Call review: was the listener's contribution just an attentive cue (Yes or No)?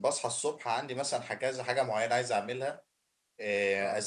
Yes